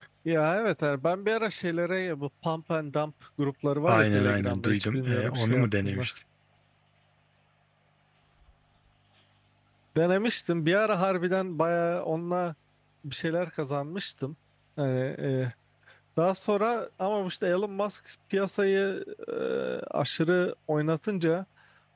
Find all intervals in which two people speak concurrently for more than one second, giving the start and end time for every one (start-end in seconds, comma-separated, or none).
3.9-6.1